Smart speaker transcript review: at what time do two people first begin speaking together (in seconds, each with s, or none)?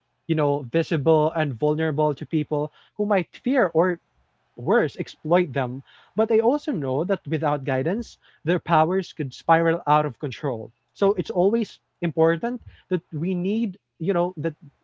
none